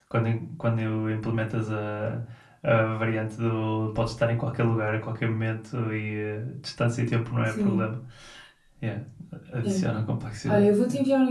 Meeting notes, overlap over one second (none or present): none